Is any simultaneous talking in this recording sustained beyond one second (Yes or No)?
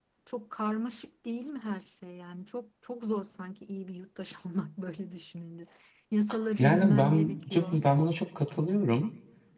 Yes